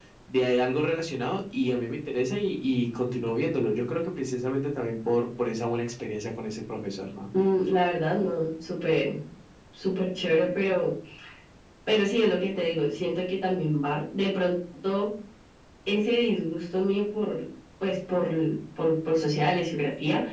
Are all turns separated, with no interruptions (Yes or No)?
Yes